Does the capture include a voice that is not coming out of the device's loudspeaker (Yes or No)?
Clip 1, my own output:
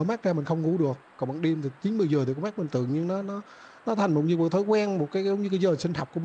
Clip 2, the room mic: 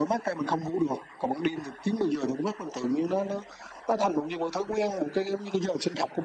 No